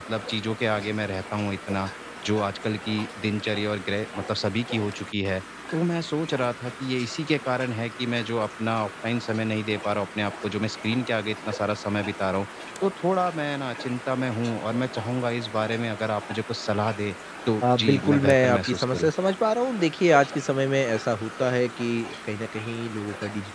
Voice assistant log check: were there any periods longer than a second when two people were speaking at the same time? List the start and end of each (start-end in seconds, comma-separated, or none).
17.8-19.1